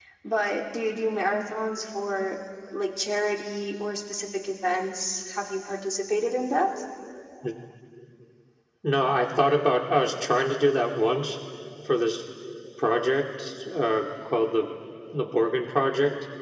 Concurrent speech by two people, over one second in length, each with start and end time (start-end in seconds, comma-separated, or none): none